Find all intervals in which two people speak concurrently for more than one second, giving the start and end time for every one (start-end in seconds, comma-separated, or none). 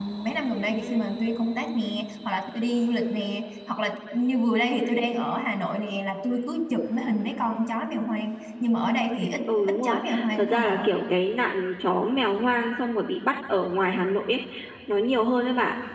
9.7-10.9